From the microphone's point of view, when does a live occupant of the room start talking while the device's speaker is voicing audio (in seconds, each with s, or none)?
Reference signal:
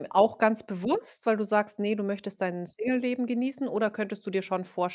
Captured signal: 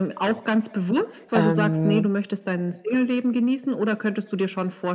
1.3 s